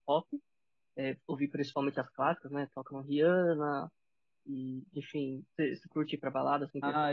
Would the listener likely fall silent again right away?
No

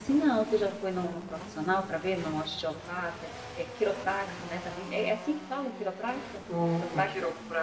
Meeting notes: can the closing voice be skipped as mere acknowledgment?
No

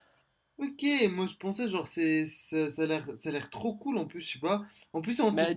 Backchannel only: No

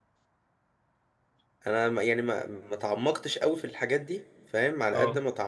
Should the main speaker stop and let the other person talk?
No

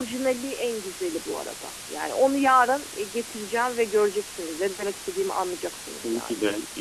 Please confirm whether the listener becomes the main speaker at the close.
Yes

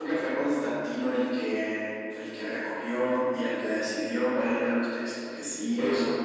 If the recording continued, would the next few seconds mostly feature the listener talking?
Yes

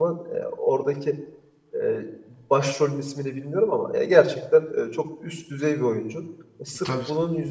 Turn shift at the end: No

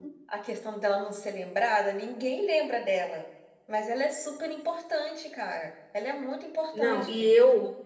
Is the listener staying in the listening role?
No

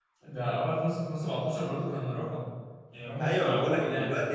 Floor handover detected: Yes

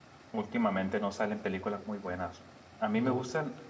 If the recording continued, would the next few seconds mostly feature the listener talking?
No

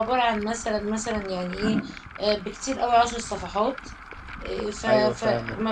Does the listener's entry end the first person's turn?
No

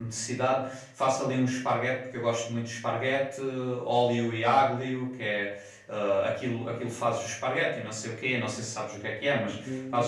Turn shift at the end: No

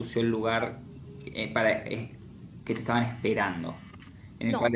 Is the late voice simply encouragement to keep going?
No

